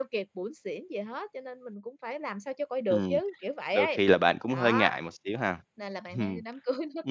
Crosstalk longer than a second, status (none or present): none